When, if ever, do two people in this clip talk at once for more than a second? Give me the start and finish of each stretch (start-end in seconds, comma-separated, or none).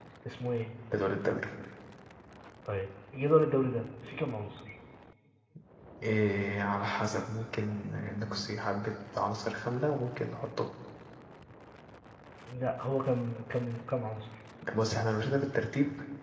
none